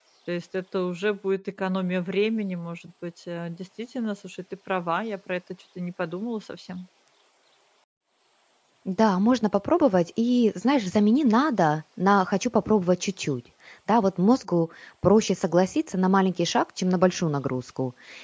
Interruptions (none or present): none